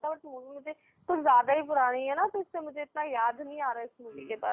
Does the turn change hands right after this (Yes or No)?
Yes